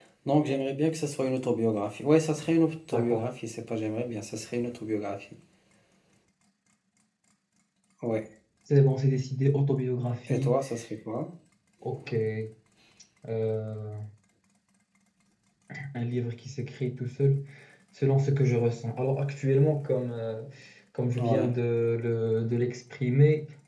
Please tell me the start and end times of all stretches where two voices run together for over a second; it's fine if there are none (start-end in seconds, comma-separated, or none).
none